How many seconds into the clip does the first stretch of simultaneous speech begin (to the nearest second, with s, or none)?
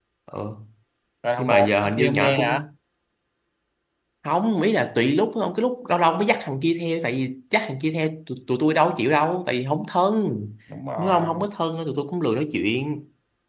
1 s